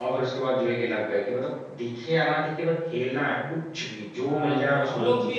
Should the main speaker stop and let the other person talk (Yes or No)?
Yes